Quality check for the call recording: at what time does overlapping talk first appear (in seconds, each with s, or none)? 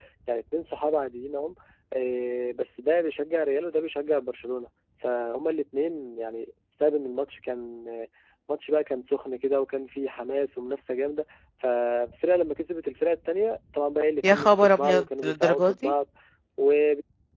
14.2 s